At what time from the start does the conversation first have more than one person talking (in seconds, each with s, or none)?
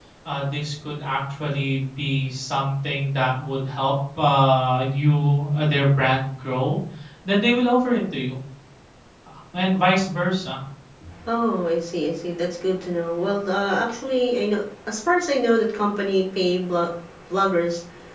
none